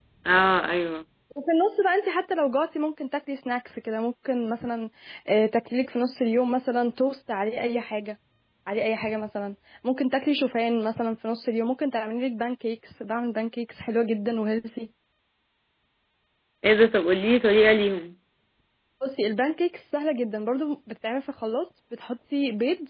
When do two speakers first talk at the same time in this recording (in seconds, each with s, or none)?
none